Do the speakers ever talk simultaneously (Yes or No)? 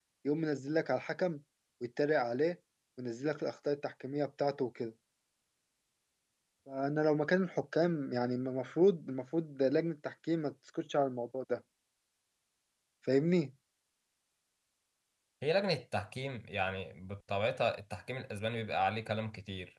No